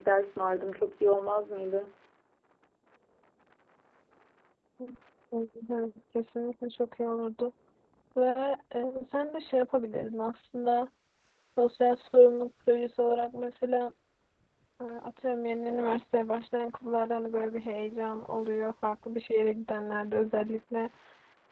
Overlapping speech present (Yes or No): No